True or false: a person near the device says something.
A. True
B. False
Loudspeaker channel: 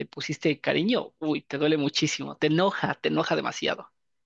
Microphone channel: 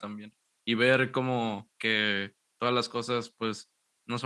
A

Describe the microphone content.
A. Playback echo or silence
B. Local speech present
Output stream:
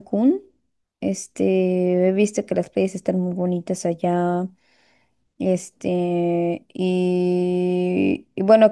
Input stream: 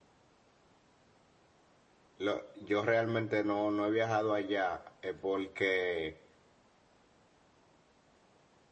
B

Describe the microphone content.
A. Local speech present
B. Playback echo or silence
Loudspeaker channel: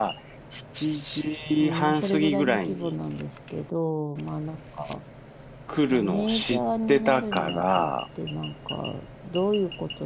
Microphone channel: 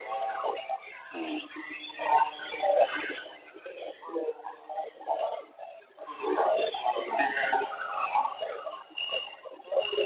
A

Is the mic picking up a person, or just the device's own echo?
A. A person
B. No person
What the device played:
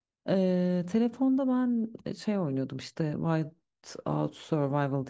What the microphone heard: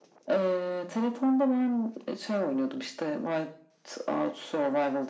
B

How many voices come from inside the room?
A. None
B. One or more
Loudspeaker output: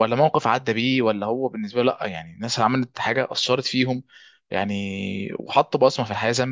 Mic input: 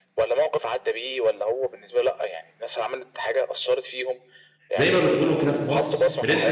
B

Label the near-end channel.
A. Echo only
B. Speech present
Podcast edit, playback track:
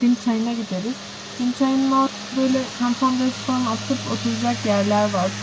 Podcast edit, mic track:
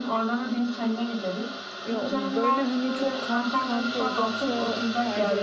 B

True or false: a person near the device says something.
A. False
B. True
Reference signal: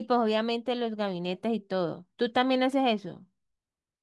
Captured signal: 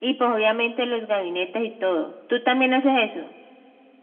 A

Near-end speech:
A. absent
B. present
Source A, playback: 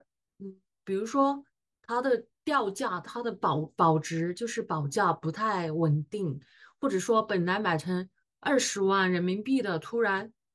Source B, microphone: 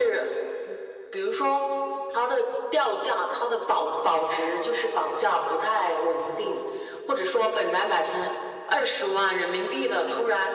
A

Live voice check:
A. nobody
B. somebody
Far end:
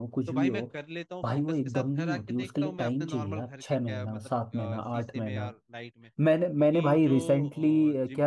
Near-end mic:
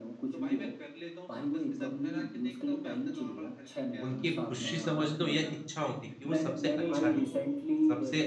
B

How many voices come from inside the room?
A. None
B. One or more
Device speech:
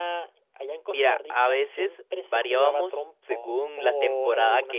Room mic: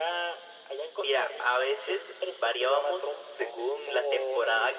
A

